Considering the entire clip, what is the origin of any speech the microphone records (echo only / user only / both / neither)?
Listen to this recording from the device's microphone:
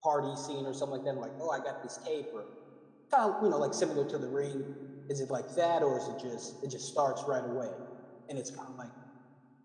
user only